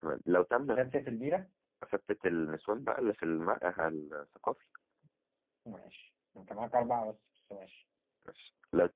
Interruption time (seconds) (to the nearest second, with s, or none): none